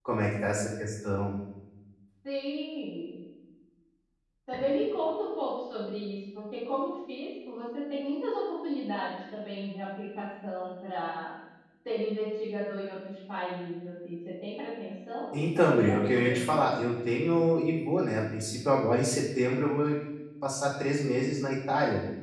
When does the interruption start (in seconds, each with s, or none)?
15.3 s